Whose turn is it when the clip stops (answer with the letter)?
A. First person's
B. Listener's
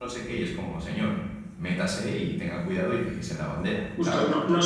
B